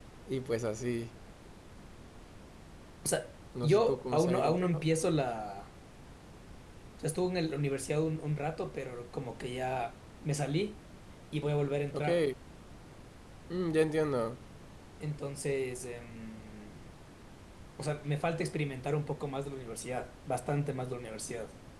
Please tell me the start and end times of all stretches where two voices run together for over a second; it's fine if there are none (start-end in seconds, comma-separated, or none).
3.6-4.8